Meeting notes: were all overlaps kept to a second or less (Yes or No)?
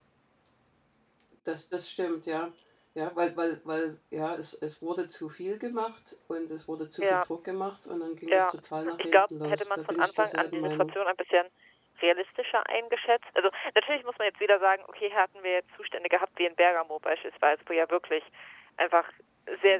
No